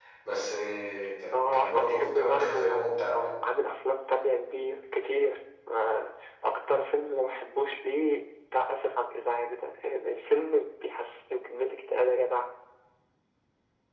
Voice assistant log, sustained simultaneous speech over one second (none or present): present